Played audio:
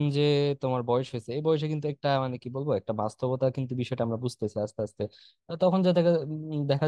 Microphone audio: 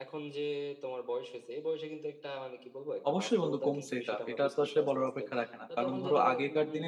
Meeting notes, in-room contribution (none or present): present